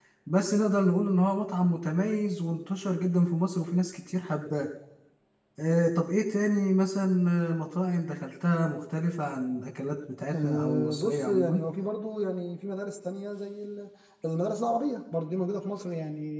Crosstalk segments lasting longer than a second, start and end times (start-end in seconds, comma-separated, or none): 10.3-11.6